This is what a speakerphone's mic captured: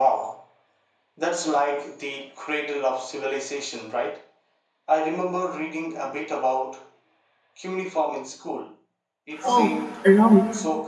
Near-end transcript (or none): Oh, Rome.